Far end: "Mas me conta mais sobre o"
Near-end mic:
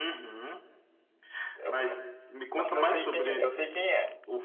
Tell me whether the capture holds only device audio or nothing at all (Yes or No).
No